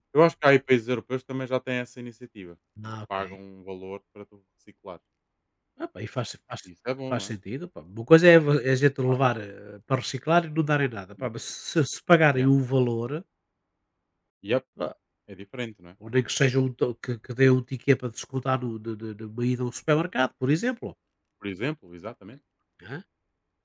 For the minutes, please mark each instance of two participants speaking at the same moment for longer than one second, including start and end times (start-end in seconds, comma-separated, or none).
none